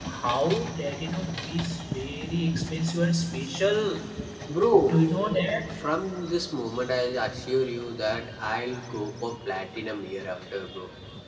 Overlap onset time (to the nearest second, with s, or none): none